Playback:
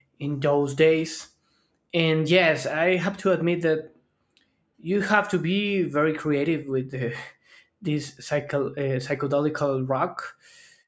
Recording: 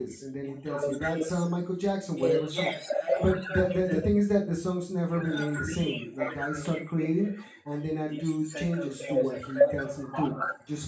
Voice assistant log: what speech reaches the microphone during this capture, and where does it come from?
both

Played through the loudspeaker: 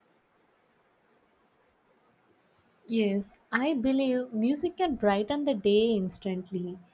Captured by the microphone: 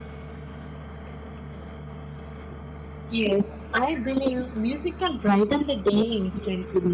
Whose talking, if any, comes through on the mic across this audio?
echo only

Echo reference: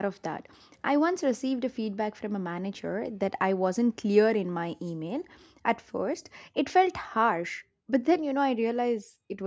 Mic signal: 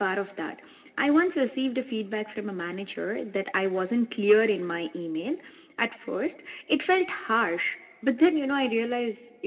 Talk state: echo only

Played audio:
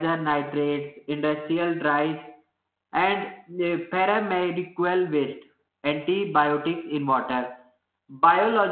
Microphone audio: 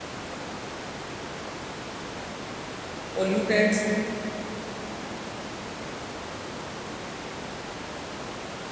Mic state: user only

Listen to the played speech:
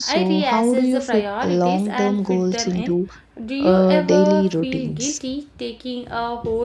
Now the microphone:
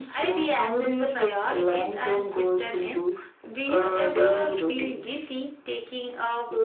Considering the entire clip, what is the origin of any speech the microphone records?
echo only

